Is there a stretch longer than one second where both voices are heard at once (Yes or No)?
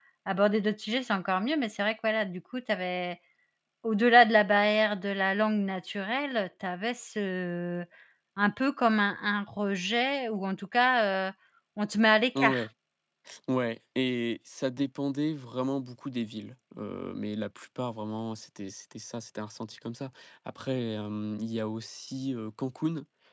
No